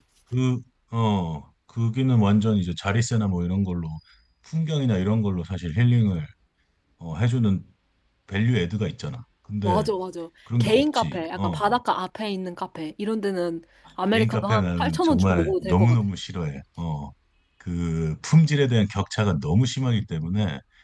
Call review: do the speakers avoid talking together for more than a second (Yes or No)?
No